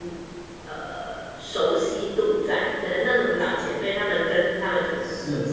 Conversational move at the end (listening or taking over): listening